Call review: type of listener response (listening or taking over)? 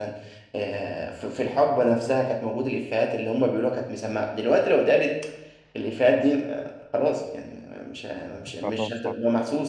listening